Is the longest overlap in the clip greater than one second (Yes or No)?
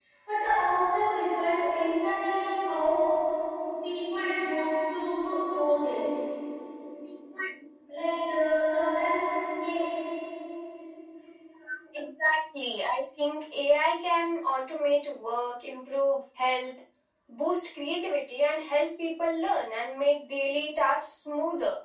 No